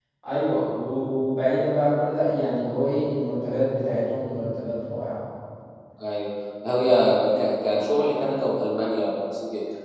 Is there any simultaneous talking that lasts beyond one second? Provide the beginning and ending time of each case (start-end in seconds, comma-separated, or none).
none